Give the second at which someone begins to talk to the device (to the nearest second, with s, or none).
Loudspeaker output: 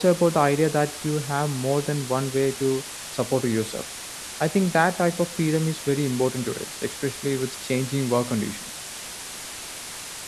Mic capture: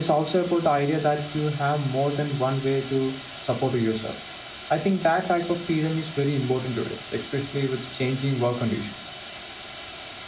none